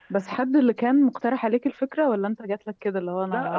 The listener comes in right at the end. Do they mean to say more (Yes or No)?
Yes